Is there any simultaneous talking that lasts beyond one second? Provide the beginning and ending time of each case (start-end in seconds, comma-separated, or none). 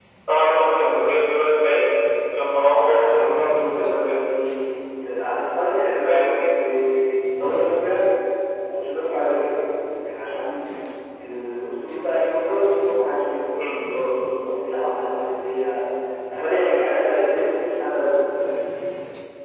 2.5-4.2